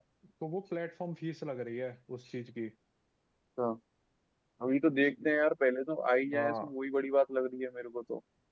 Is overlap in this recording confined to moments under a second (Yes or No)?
Yes